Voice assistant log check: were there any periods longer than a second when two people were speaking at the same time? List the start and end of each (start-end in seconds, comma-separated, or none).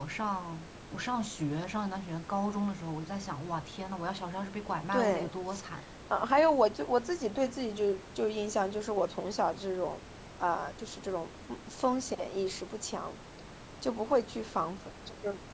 none